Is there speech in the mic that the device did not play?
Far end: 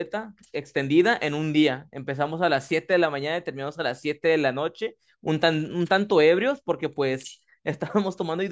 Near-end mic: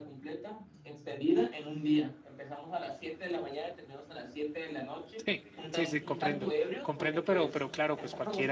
Yes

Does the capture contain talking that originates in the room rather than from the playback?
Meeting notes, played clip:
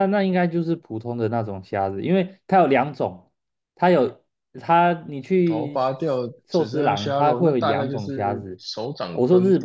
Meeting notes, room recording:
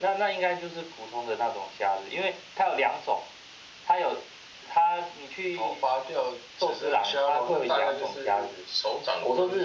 No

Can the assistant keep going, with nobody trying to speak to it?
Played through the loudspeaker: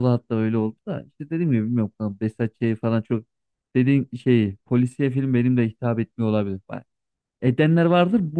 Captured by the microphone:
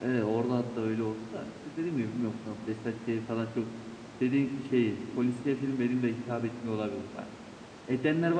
Yes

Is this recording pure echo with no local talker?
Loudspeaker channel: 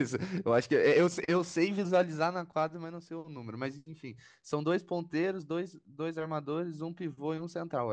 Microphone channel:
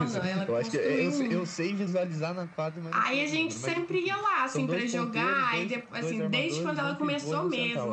No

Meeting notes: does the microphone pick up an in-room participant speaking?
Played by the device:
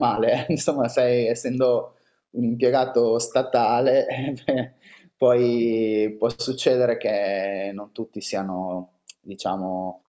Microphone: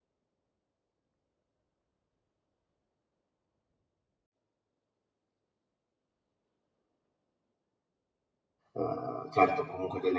Yes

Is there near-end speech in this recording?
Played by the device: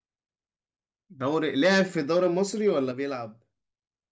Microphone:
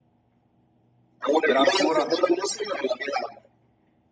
Yes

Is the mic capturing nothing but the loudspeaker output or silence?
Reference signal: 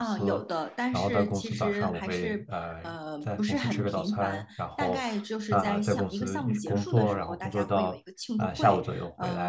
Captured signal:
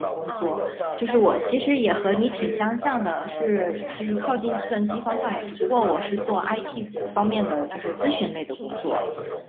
No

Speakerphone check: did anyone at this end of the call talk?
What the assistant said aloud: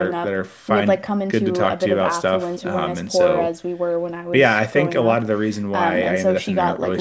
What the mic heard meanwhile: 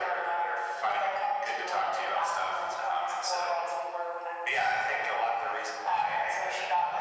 No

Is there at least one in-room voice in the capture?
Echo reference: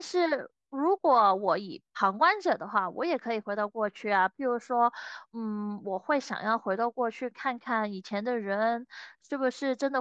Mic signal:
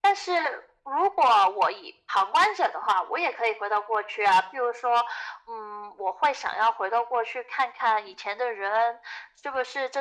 No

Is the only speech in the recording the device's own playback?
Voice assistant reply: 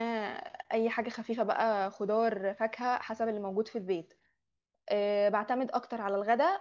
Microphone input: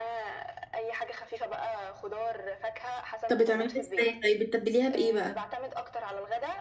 No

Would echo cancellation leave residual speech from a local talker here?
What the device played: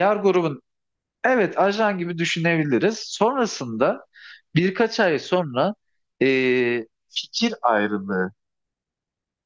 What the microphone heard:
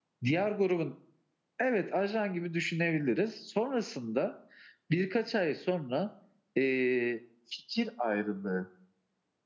No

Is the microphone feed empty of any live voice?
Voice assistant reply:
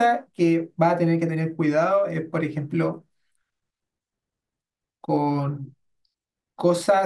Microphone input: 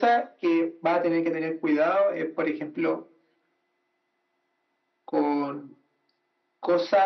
Yes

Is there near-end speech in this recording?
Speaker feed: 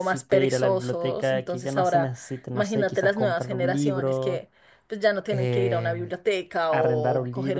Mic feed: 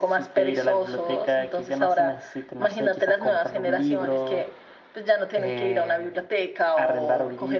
No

